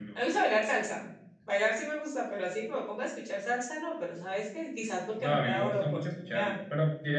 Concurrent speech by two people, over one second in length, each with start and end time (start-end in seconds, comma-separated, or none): 5.2-6.6